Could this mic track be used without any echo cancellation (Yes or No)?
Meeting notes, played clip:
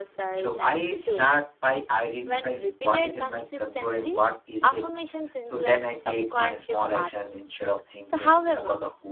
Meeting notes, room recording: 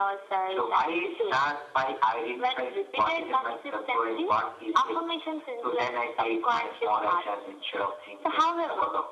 No